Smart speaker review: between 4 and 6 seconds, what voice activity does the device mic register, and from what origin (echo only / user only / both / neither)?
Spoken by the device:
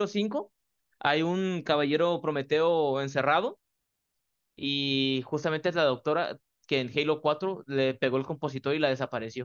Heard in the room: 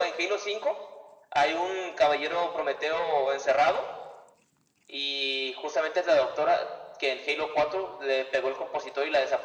echo only